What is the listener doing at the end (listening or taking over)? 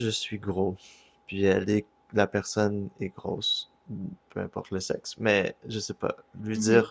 listening